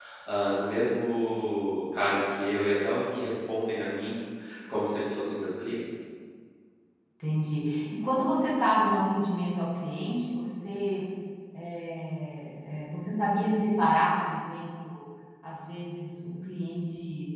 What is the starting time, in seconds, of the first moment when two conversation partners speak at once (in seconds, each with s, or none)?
none